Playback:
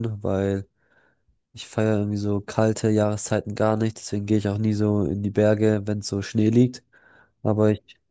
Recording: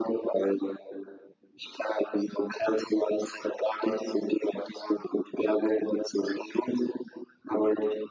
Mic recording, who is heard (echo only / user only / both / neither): echo only